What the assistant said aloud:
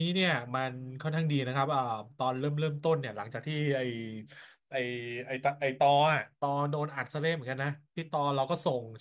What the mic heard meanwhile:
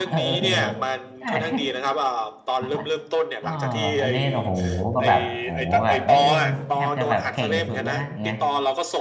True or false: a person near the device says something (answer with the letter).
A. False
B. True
B